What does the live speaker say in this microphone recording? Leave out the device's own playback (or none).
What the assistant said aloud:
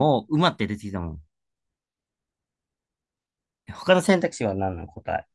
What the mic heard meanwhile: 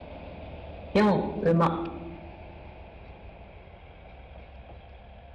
4、馬。